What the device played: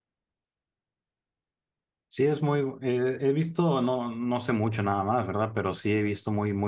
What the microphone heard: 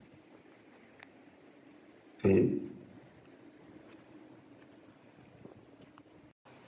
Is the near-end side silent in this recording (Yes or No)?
No